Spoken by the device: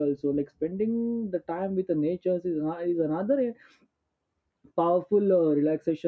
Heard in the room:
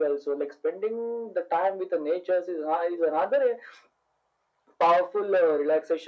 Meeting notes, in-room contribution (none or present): none